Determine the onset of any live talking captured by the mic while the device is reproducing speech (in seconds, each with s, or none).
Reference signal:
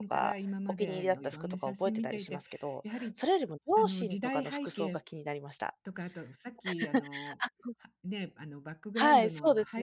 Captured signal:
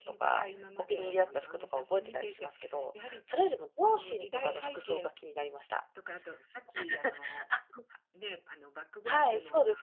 none